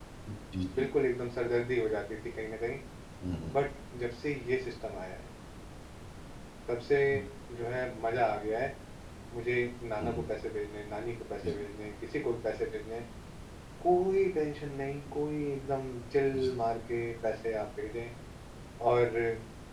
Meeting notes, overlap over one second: none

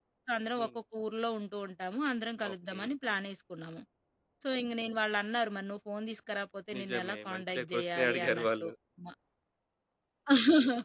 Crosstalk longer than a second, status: present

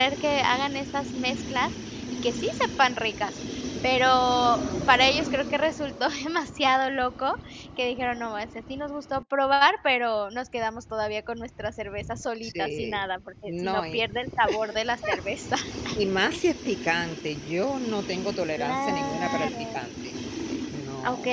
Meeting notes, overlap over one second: present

